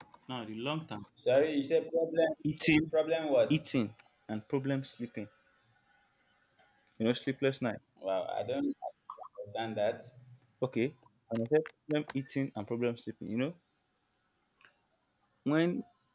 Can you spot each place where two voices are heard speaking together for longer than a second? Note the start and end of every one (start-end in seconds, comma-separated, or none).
none